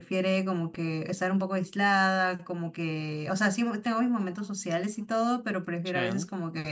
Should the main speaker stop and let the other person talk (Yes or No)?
No